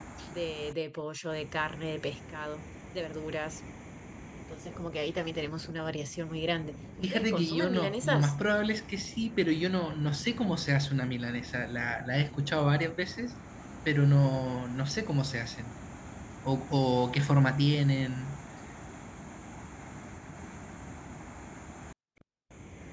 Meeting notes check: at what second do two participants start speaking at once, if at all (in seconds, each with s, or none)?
7.0 s